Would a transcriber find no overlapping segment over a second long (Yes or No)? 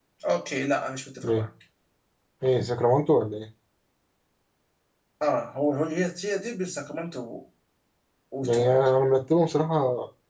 Yes